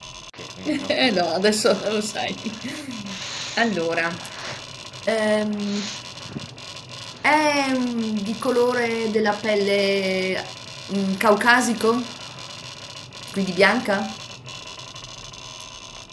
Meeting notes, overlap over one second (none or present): present